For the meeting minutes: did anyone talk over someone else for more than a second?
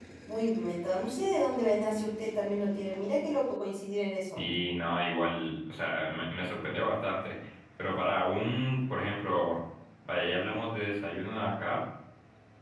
No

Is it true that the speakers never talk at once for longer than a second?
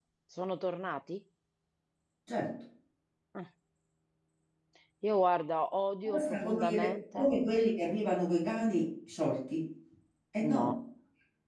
No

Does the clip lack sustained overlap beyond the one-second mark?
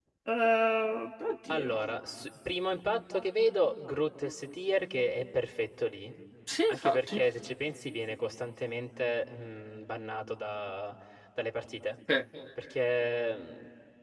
Yes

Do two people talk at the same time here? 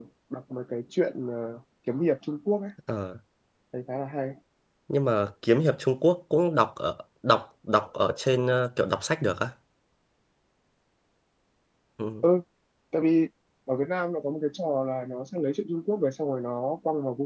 No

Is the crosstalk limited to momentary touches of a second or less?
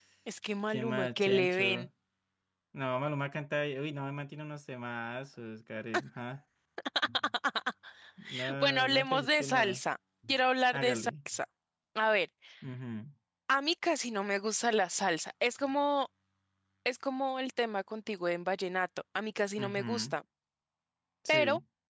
No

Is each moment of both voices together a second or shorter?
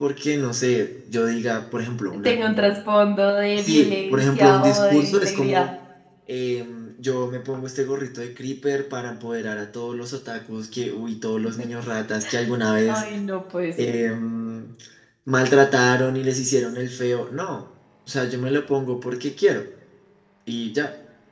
No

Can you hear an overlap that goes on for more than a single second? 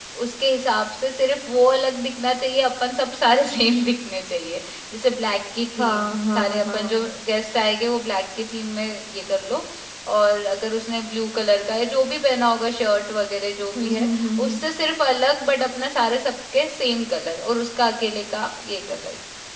Yes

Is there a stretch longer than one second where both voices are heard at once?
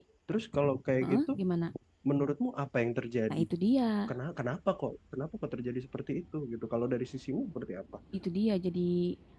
No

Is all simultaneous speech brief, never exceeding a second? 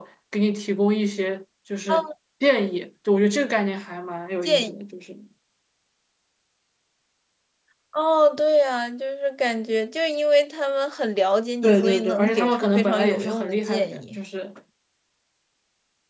No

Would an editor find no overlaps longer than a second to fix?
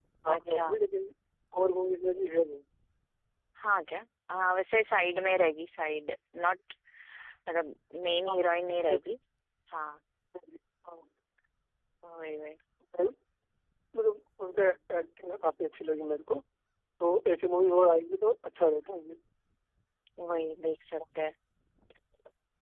Yes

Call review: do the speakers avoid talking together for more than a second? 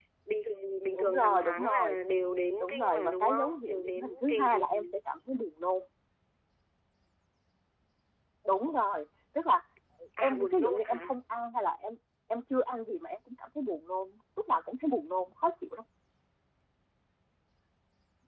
No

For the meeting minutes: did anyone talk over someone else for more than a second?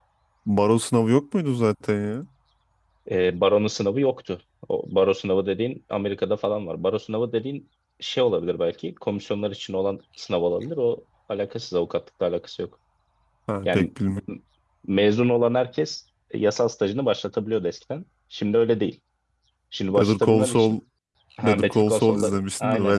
Yes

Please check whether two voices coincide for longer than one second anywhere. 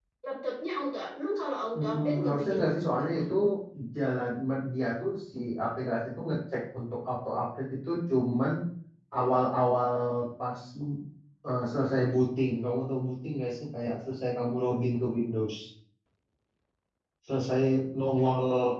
Yes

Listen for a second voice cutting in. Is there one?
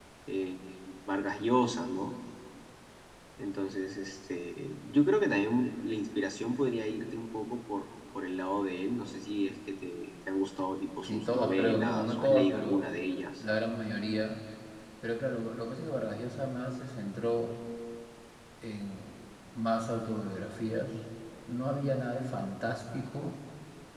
Yes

